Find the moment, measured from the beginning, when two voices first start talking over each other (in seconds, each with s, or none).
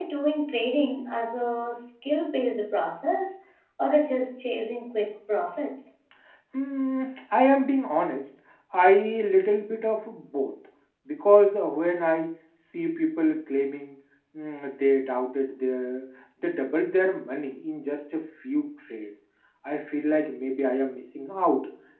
none